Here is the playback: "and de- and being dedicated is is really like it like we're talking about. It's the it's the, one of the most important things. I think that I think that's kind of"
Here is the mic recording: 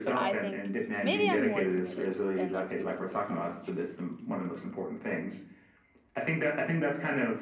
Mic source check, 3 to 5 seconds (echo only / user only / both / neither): both